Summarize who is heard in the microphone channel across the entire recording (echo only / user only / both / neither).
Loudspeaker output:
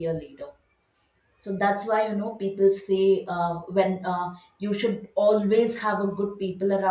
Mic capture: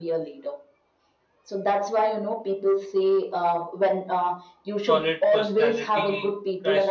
both